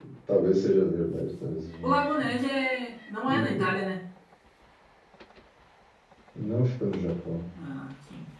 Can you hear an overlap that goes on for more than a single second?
No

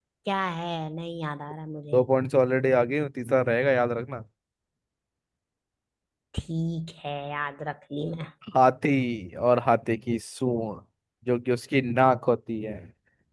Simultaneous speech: No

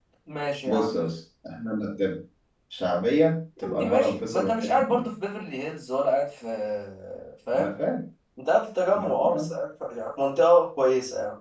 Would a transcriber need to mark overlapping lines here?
Yes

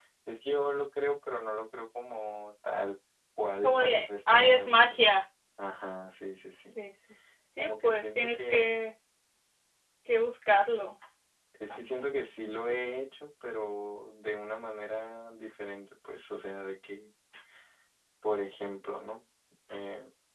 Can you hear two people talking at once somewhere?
Yes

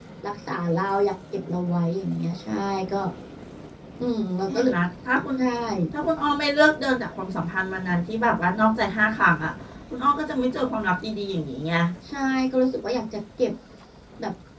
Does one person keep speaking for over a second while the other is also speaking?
No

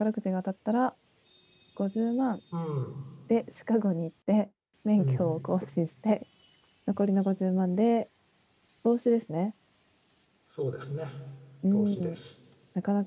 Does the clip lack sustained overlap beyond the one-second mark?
Yes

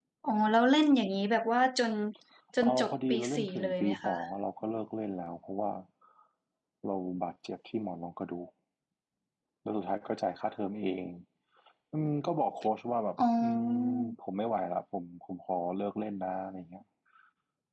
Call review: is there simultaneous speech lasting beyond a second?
Yes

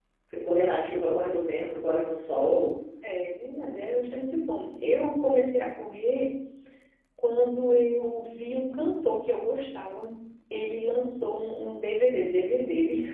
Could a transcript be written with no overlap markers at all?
Yes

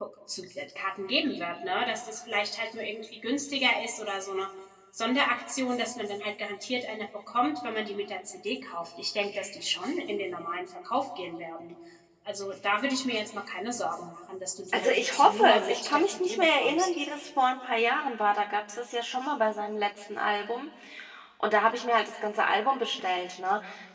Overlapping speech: Yes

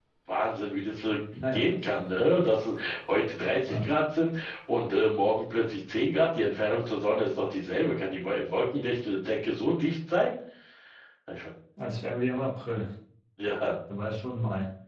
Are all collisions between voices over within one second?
Yes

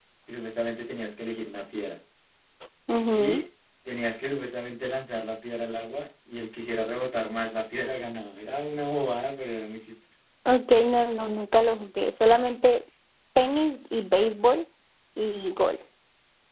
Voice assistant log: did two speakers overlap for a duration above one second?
No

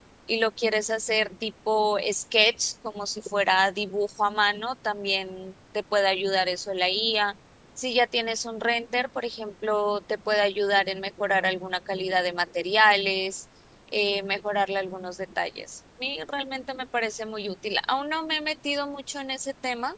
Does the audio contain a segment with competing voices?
No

